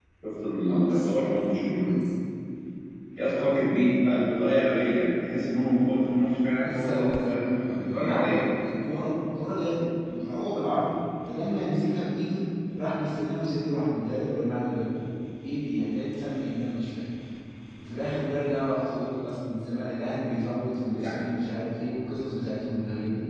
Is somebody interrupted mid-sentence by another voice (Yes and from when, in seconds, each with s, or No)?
Yes, from 0.7 s